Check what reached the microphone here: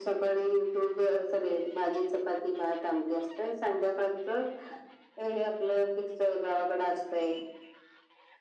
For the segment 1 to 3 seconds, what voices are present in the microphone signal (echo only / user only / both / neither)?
echo only